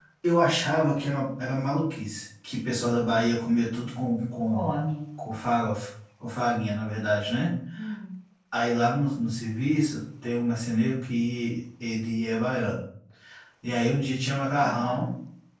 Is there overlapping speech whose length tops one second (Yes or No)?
No